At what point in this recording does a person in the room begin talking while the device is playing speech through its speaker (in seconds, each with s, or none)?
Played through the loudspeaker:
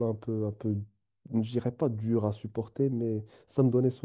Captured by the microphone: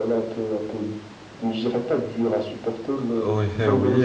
3.0 s